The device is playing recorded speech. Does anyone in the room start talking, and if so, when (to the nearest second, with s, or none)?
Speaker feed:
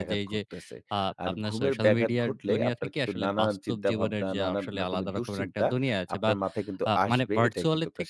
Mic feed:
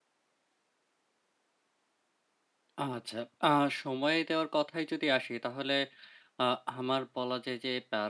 3 s